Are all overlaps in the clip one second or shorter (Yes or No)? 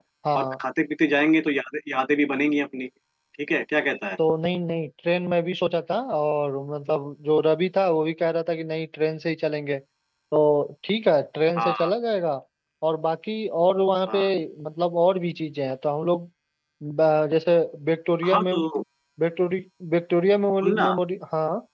Yes